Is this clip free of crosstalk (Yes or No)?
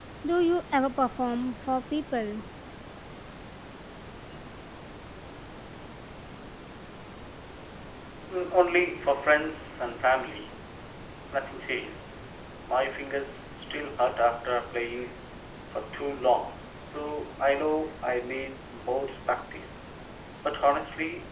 Yes